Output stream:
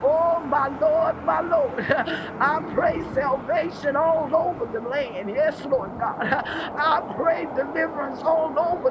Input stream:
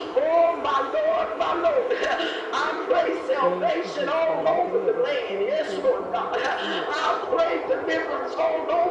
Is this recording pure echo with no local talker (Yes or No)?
No